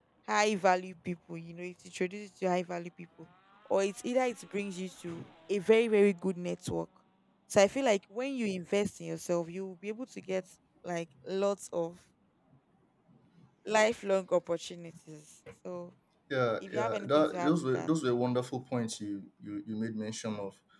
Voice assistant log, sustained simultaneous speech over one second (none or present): present